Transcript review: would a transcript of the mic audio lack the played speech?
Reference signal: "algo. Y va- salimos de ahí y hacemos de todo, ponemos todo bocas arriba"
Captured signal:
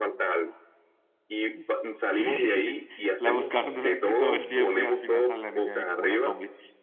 No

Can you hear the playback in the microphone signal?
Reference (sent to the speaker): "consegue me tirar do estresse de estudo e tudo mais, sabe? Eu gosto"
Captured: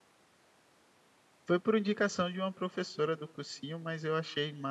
No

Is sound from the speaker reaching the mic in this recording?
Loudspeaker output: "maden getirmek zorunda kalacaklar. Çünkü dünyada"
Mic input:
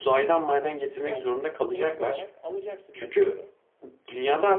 Yes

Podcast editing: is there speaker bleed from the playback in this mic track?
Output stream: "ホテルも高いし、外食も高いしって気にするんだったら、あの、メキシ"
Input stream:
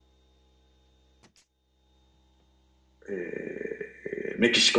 No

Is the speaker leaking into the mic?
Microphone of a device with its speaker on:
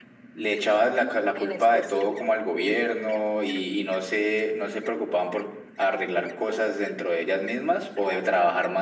Yes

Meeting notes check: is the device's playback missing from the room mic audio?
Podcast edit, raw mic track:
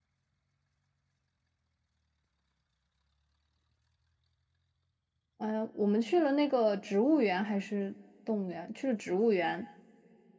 Yes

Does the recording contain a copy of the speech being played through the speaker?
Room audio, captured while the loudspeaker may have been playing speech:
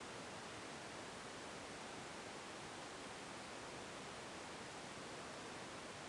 No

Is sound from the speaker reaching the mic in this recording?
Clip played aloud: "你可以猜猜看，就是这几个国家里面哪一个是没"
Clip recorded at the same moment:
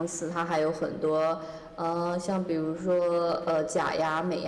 No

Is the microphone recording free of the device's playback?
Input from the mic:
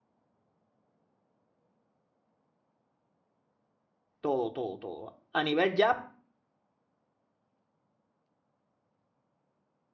Yes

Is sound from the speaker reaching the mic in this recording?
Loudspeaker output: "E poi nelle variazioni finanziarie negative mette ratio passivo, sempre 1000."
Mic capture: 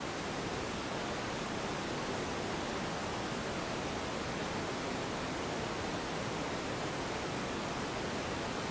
No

